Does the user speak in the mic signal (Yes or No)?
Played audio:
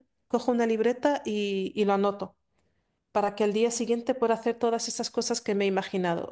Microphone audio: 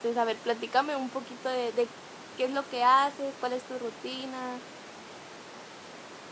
Yes